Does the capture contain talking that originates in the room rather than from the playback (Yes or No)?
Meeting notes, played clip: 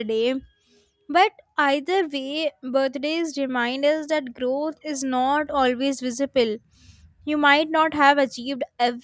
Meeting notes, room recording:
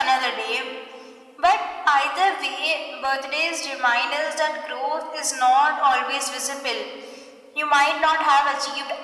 No